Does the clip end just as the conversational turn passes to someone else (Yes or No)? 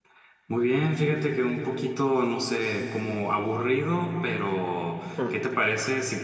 No